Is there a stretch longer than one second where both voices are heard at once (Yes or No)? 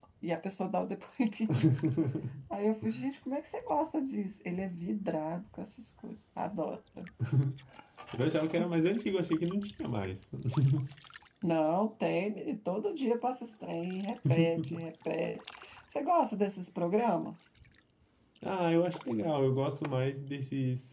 No